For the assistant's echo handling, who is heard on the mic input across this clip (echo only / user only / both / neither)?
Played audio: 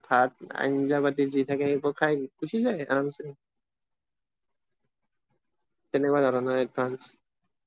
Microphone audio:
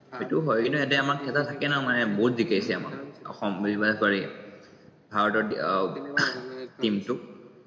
both